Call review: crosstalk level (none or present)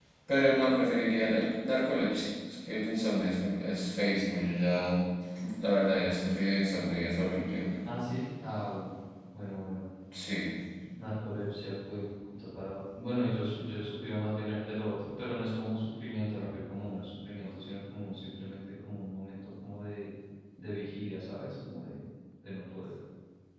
none